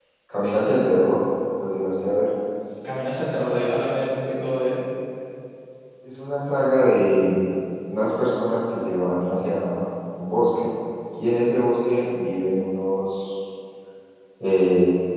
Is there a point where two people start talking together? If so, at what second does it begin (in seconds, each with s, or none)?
none